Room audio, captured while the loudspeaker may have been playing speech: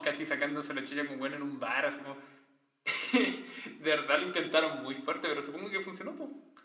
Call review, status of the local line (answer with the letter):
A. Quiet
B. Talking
A